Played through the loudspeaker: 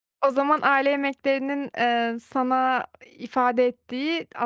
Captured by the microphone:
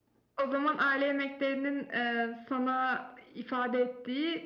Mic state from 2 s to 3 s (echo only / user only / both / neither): echo only